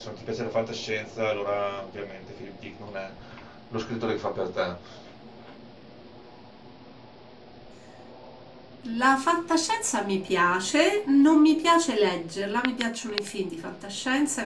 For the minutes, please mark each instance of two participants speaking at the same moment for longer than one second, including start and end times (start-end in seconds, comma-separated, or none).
none